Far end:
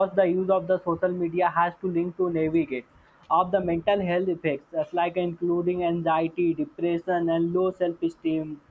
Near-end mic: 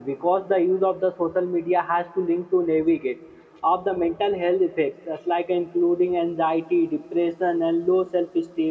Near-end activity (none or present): none